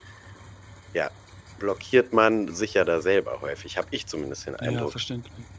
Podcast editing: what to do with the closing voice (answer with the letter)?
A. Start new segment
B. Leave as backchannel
A